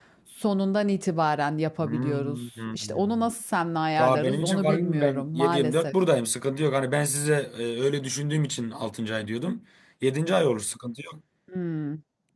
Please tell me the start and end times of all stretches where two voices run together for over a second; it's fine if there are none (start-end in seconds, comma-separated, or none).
1.8-3.3, 4.0-5.9